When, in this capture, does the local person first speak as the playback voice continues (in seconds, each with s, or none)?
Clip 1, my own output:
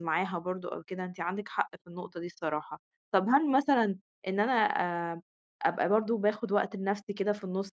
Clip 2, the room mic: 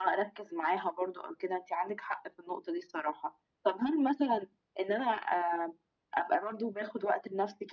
none